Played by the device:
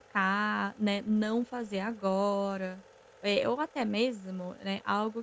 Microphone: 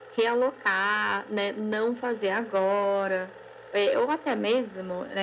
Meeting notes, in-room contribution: none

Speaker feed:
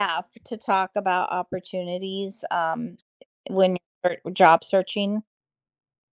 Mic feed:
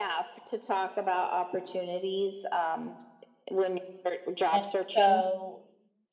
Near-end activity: present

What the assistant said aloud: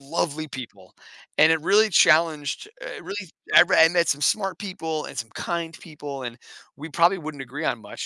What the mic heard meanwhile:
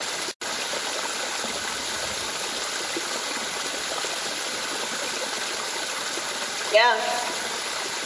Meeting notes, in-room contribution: present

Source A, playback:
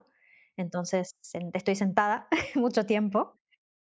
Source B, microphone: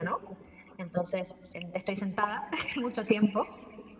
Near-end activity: none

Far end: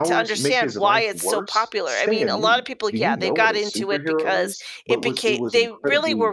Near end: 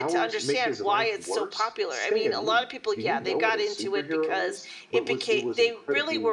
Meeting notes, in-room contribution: none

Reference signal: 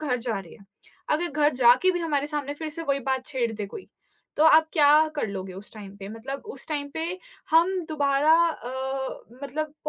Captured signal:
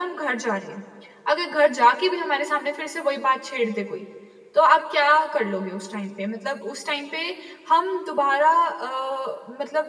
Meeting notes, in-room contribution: none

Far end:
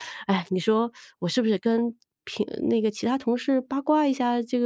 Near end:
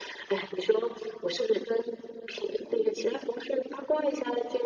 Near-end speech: none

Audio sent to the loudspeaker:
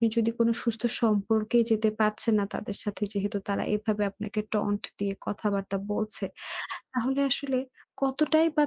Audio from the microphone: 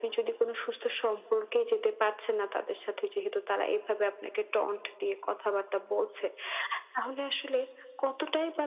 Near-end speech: none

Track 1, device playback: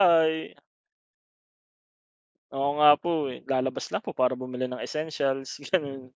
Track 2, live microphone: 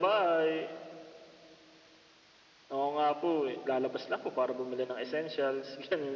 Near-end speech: none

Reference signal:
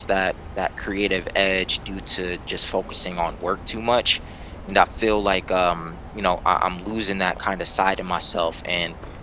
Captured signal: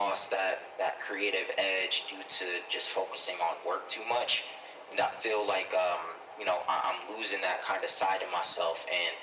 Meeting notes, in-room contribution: none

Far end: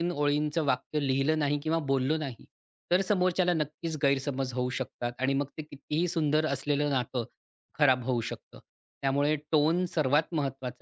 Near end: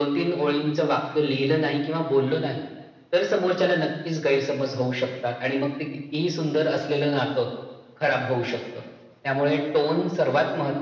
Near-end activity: none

